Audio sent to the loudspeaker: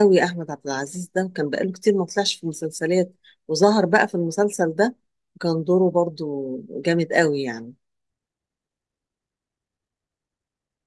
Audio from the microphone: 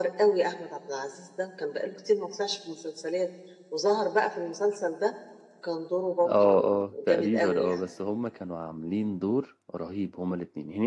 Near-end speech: present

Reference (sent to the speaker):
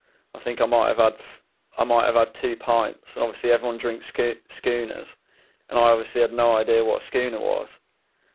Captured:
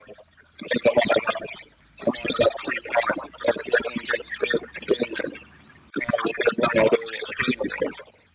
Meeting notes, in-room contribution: none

